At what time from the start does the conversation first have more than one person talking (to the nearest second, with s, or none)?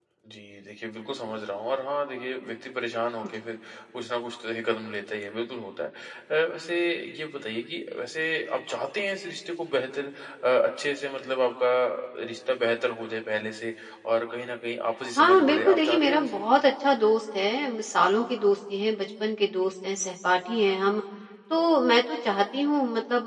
15 s